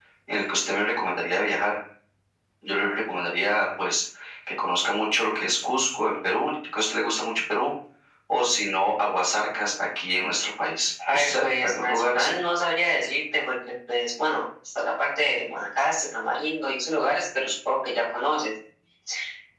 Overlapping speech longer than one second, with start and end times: 11.1-12.3

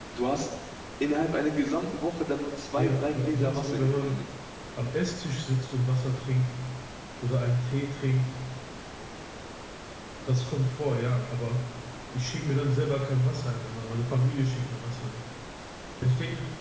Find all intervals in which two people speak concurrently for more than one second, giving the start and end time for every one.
2.8-4.2

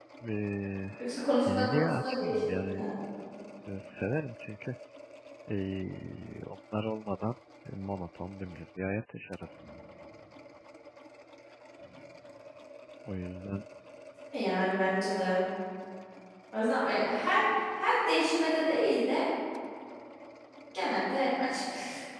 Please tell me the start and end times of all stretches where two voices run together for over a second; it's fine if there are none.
1.5-2.8

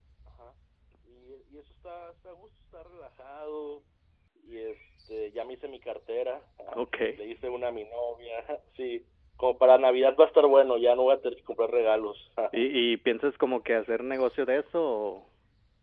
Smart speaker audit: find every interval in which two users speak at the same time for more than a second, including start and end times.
none

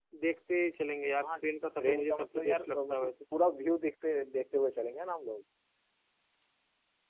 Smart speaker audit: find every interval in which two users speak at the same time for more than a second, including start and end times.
1.8-3.1

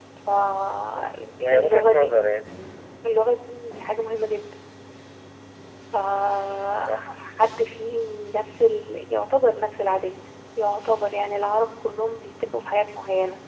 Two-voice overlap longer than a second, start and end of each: 0.9-2.1

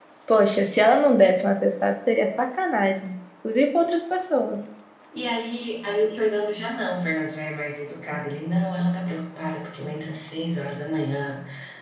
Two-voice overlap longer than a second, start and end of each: none

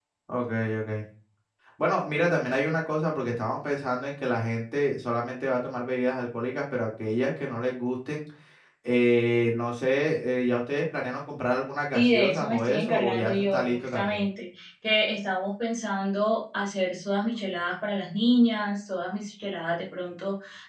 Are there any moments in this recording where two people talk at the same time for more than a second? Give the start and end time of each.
11.9-14.2

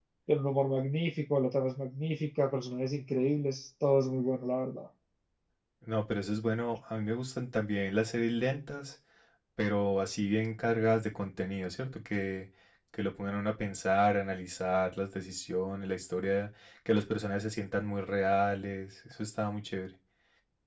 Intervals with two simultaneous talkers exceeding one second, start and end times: none

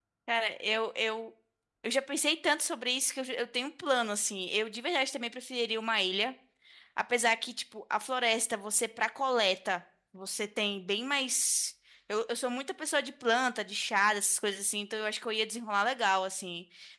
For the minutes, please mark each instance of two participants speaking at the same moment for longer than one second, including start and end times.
none

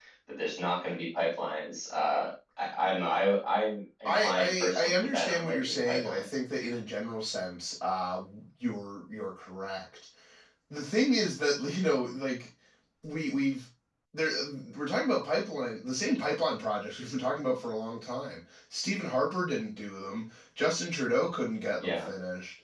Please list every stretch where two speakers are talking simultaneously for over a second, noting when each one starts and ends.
4.0-6.2

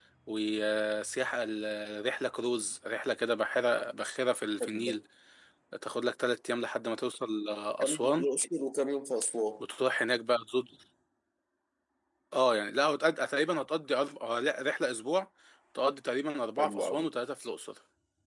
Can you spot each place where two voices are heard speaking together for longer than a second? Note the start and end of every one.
none

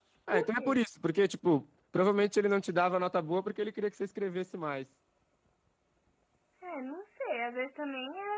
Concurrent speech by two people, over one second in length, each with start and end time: none

